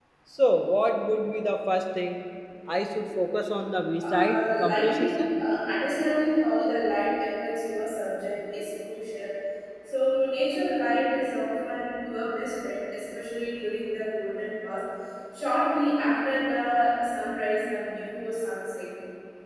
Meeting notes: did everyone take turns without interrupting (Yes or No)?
No